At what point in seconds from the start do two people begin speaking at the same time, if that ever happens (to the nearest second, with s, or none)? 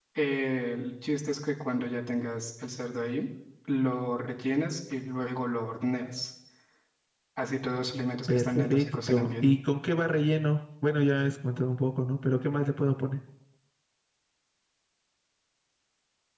8 s